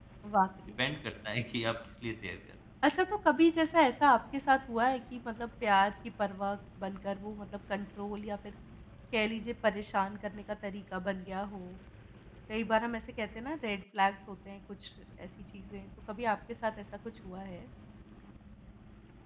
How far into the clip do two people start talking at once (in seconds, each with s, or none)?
none